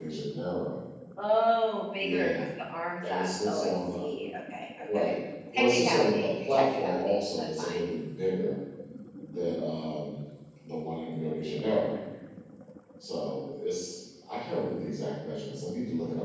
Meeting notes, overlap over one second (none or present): present